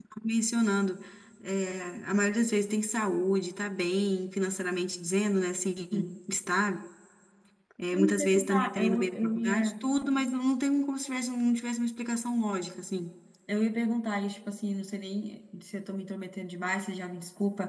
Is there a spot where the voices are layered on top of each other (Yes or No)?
Yes